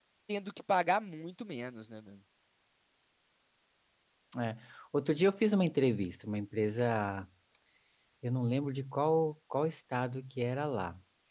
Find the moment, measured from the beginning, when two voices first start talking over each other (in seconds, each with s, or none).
none